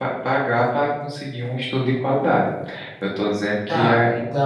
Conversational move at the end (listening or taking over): taking over